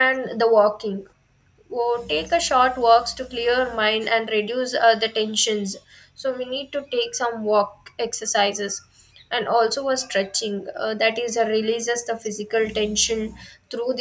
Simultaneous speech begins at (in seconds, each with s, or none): none